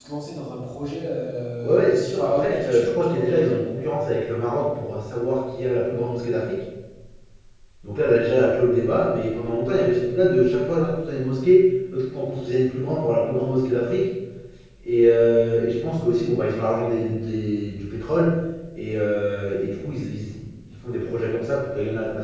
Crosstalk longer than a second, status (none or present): present